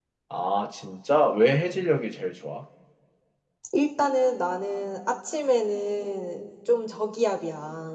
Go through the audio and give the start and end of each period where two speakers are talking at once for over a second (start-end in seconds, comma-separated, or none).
none